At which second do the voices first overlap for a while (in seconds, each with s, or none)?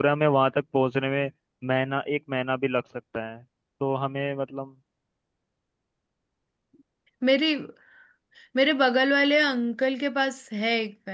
none